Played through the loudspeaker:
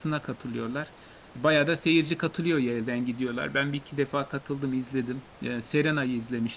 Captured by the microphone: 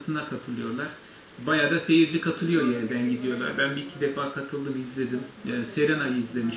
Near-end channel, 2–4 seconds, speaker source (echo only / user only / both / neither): both